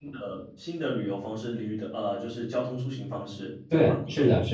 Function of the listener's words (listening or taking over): taking over